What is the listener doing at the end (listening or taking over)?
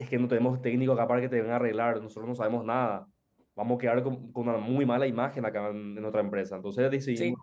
listening